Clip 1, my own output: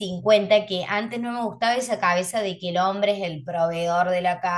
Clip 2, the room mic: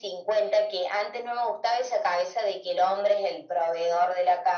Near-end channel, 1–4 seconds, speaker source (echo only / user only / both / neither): echo only